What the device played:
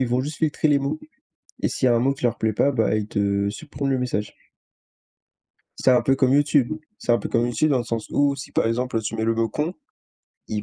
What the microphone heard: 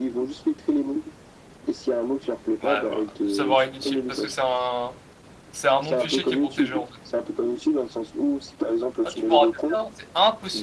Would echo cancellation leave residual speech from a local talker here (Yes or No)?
Yes